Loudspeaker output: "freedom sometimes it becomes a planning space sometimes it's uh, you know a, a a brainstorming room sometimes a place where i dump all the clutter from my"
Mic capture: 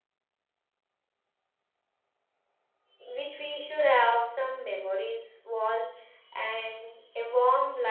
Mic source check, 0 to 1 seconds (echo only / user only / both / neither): neither